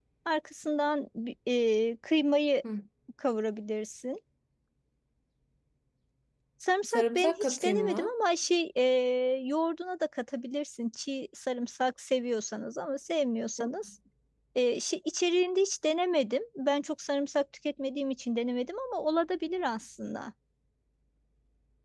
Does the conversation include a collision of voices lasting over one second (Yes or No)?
Yes